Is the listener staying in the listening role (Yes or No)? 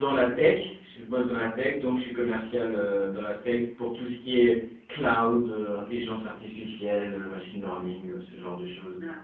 No